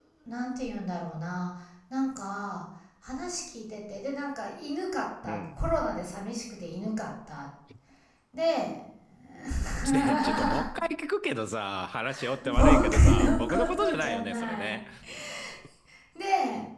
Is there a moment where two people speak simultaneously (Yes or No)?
Yes